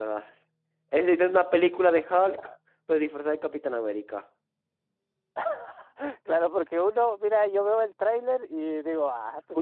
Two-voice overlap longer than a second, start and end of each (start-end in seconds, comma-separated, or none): none